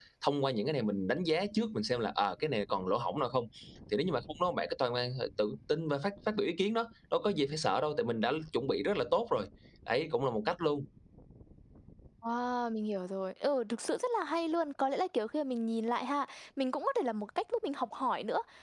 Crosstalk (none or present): none